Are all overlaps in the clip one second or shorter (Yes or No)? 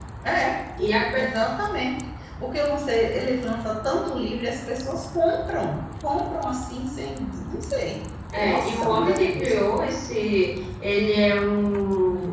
No